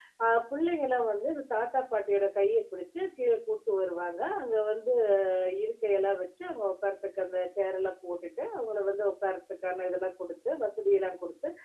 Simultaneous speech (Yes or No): No